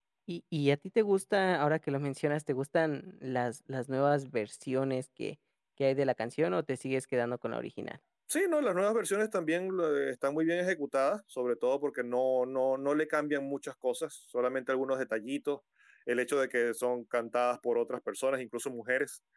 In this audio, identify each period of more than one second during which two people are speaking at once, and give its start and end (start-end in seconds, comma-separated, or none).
none